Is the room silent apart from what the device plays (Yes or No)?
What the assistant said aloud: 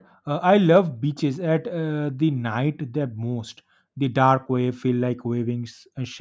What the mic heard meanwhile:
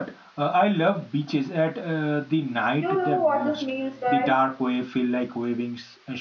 No